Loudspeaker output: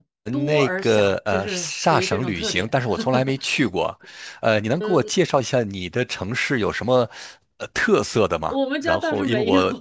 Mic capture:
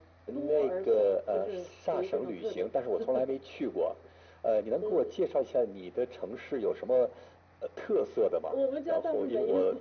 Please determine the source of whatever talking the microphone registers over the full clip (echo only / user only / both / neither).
echo only